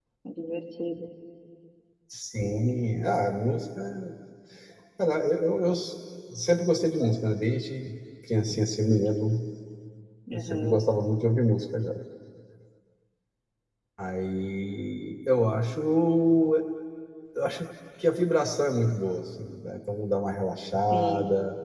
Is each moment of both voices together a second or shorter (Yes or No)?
Yes